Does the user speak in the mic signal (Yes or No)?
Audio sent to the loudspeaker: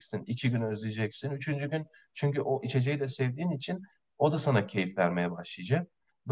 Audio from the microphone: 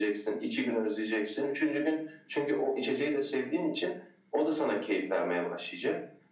No